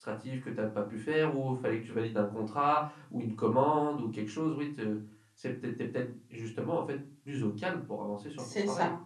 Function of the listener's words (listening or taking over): taking over